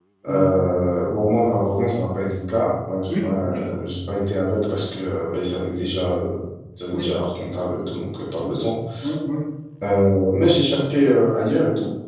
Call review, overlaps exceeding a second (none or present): none